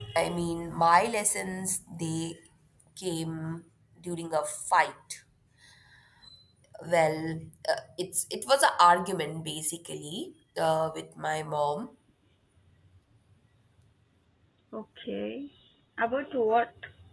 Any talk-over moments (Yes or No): No